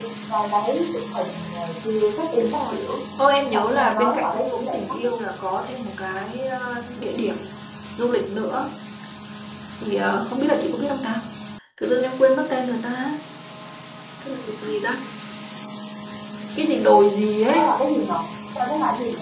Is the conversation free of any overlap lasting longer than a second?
No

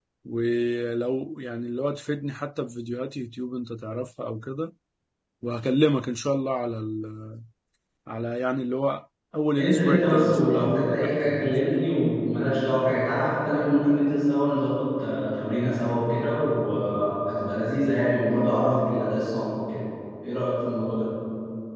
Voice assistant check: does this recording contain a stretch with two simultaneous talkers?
Yes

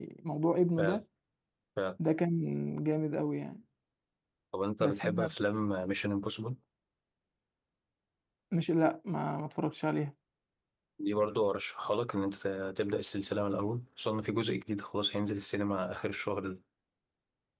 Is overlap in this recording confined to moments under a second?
Yes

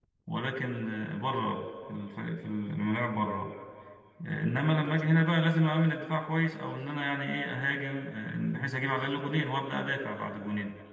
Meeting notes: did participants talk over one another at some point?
No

